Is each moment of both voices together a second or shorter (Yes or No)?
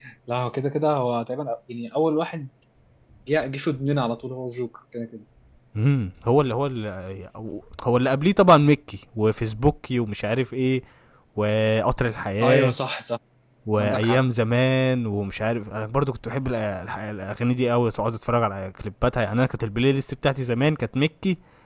Yes